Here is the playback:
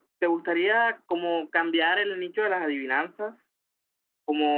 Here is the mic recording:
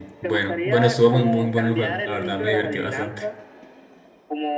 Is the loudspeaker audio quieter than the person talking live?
Yes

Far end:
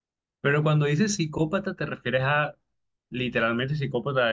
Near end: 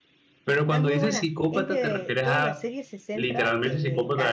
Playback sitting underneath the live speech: No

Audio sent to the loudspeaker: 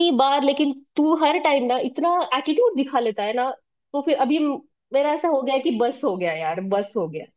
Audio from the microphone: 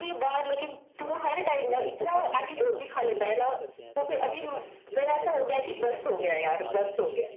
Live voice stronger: No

